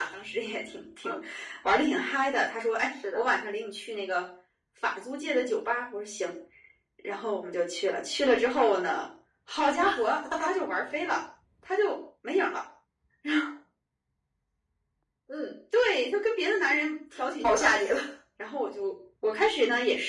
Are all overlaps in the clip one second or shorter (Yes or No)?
Yes